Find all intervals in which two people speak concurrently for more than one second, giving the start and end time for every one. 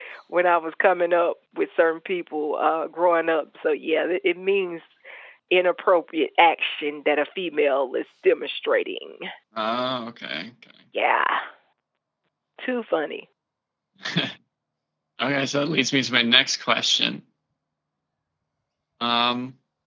none

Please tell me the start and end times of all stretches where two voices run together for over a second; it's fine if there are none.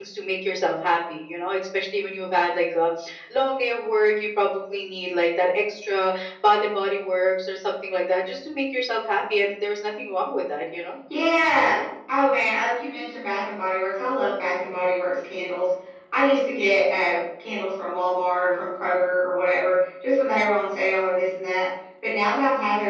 none

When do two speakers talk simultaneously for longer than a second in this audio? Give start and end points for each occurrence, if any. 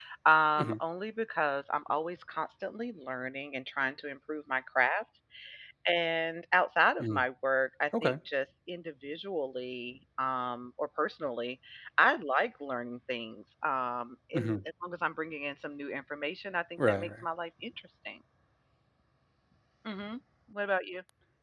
none

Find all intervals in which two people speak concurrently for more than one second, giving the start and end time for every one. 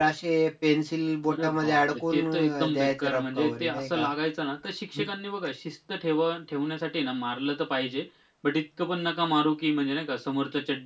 1.3-4.1

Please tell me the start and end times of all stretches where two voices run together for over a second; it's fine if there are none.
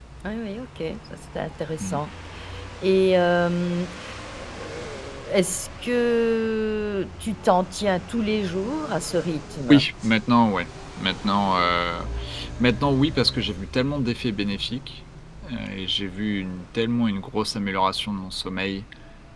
none

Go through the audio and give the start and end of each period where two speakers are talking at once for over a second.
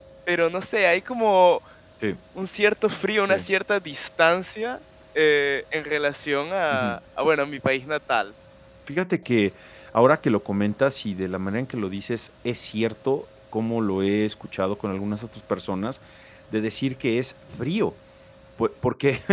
none

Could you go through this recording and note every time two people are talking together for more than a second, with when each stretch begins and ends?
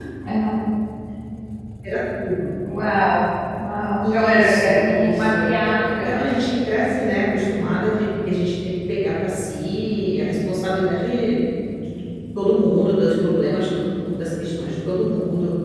4.0-5.4

